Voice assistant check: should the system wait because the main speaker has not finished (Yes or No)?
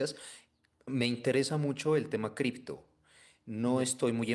Yes